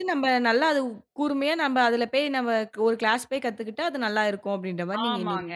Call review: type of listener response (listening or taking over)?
taking over